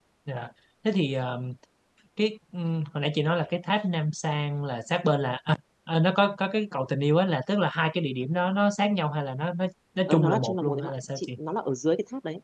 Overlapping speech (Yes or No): Yes